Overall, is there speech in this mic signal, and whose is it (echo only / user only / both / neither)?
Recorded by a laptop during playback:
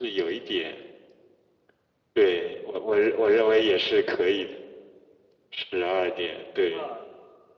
both